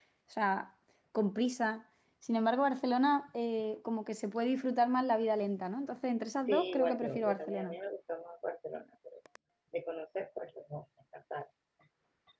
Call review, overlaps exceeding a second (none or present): present